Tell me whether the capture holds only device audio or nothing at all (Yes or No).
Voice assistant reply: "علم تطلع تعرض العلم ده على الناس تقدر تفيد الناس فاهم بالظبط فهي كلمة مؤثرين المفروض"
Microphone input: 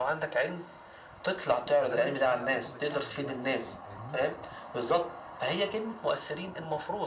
No